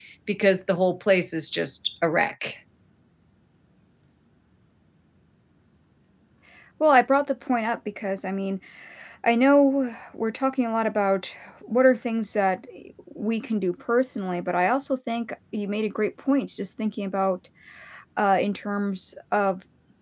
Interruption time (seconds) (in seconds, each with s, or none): none